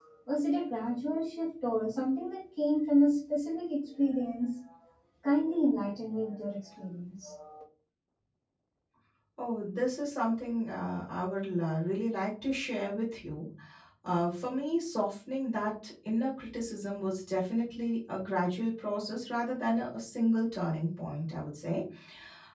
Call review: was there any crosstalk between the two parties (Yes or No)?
No